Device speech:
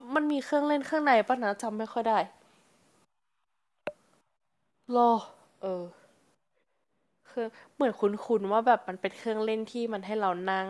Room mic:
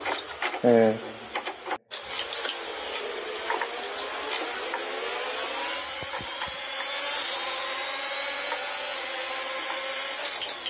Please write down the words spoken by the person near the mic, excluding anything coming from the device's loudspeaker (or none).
เออ